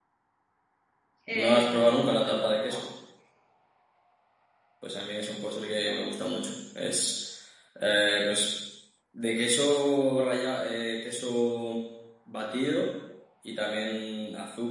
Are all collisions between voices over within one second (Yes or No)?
No